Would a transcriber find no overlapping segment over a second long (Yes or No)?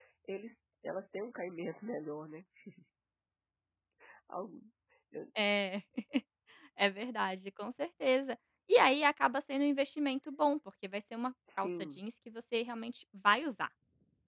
Yes